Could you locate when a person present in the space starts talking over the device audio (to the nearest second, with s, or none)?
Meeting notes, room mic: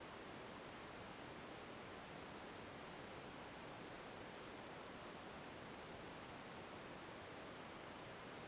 none